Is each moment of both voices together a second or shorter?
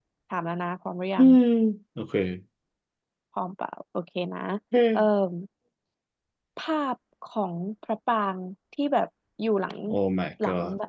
Yes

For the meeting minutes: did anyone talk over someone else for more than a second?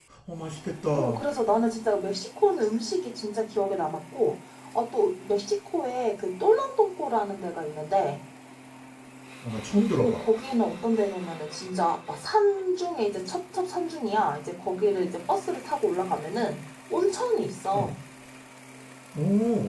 No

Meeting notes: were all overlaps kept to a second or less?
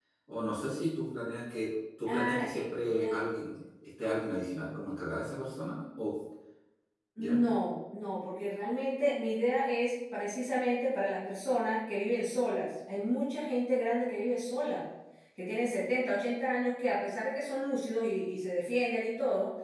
No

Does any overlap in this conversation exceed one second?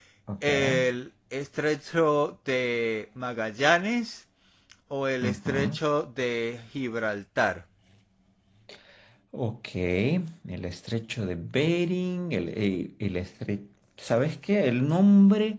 No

